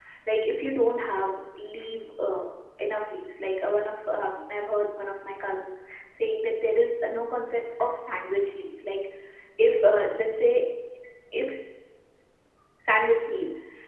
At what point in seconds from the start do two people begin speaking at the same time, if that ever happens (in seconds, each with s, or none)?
none